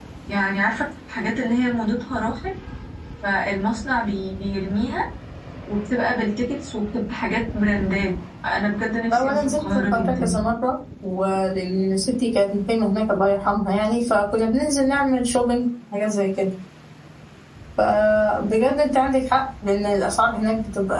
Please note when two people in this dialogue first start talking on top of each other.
9.1 s

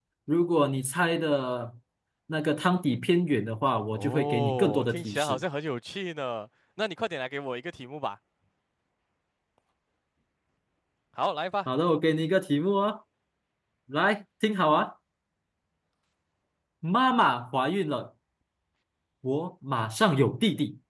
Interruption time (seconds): 3.9 s

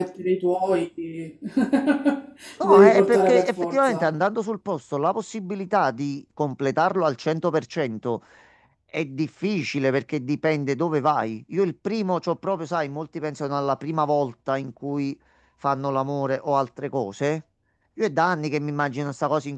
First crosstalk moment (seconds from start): 2.7 s

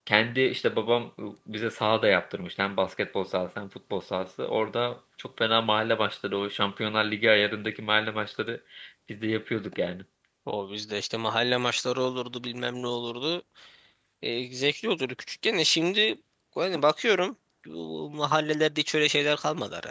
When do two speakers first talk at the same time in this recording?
none

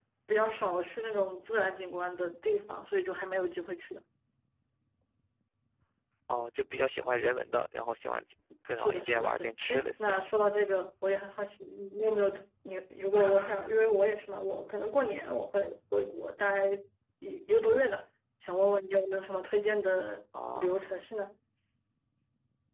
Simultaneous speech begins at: 8.8 s

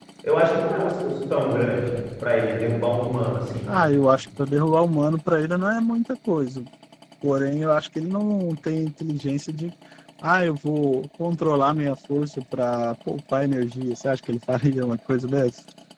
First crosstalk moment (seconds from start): none

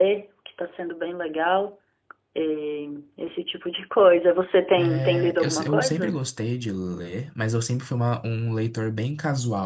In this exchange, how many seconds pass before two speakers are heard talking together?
4.8 s

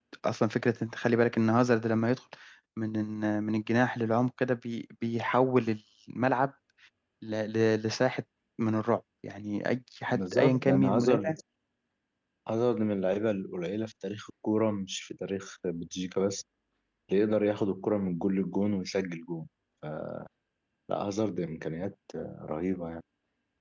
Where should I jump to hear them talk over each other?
10.1 s

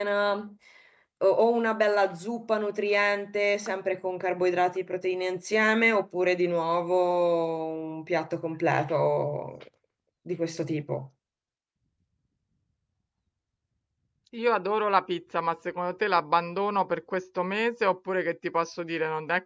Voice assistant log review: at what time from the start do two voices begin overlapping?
none

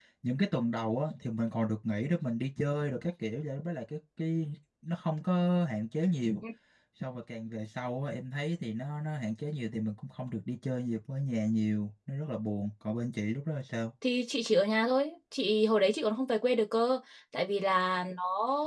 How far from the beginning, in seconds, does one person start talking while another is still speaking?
none

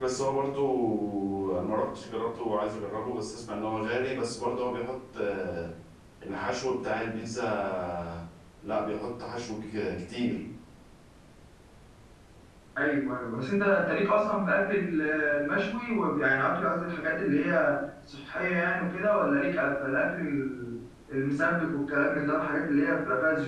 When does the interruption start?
none

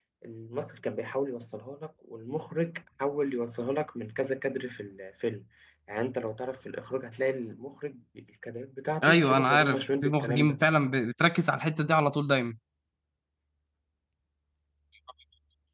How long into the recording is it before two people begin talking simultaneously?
9.0 s

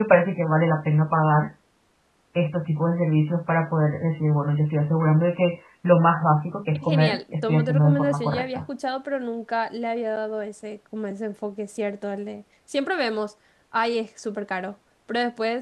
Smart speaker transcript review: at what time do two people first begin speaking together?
6.8 s

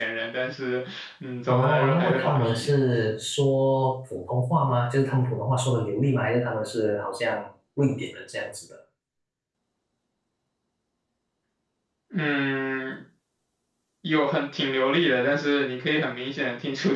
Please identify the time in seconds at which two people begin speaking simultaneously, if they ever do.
1.5 s

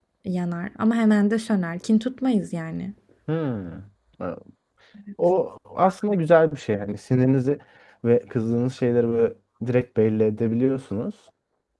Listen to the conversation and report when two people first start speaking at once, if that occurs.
none

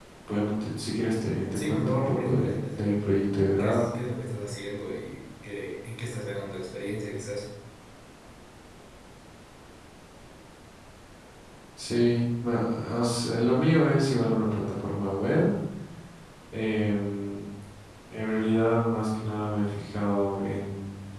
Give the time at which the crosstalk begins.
1.5 s

